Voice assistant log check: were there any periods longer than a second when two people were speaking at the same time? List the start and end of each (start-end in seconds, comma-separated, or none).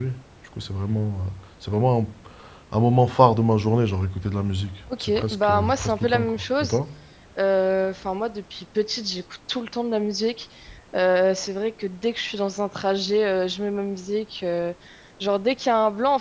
5.0-6.8